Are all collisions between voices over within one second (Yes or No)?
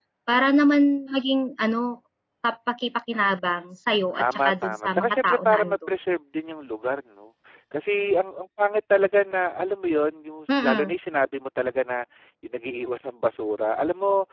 No